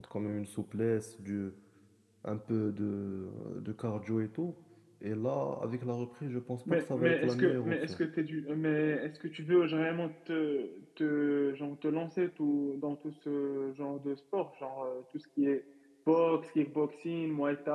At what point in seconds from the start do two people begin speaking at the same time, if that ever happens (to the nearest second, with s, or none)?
7 s